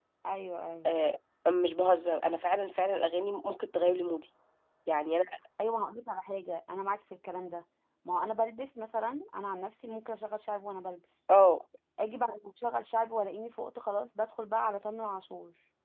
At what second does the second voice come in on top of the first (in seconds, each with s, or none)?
none